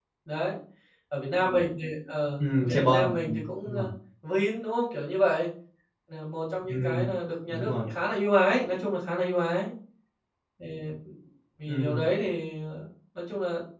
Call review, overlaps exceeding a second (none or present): present